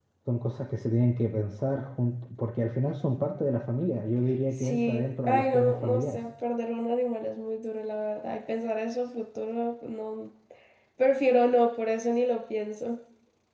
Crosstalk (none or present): present